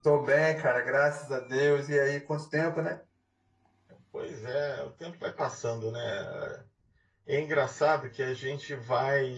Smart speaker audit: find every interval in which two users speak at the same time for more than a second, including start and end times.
none

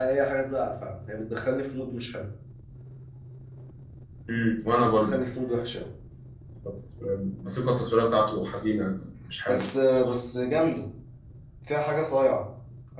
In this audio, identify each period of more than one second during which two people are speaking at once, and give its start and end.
none

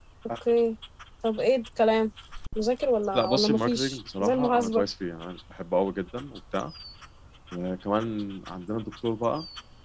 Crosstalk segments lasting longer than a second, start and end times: 3.1-4.8

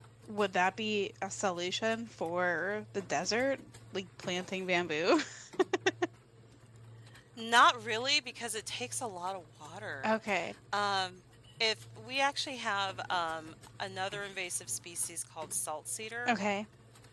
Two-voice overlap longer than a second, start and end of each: none

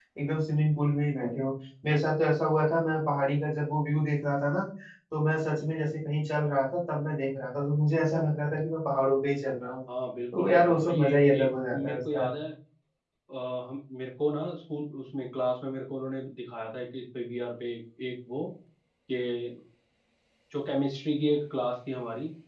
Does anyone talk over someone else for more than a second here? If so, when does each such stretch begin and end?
10.3-12.3

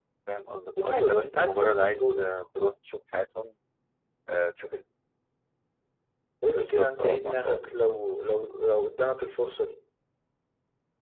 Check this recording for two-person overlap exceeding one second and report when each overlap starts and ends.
0.8-2.3, 6.5-7.8

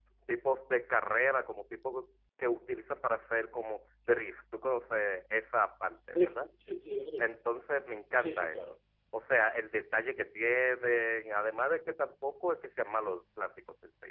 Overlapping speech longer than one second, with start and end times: none

